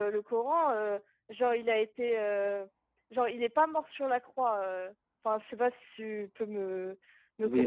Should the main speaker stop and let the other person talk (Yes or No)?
Yes